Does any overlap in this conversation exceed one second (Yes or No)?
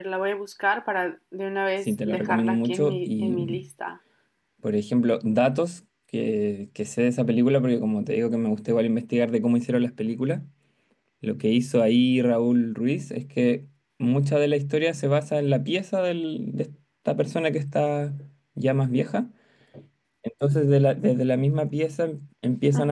Yes